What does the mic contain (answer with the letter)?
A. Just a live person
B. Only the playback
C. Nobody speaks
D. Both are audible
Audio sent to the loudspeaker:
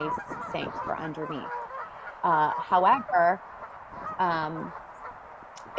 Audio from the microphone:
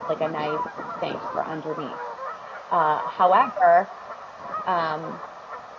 B